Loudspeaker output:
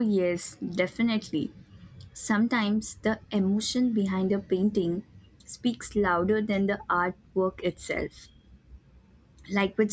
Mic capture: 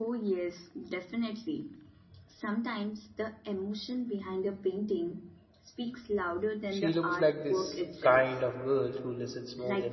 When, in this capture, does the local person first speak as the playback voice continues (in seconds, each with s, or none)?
6.7 s